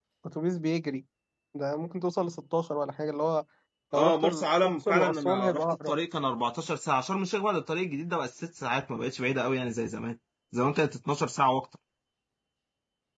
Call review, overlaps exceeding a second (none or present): present